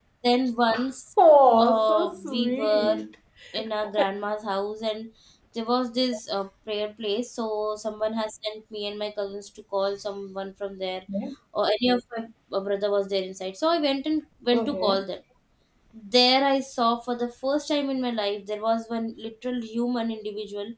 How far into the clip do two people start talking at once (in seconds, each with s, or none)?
1.6 s